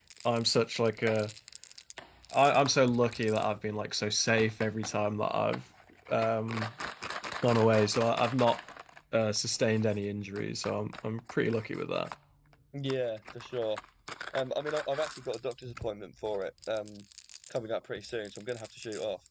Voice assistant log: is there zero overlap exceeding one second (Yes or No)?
Yes